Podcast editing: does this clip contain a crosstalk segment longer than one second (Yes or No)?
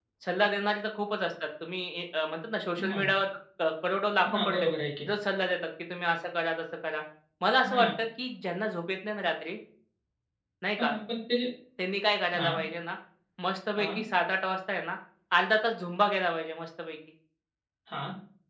No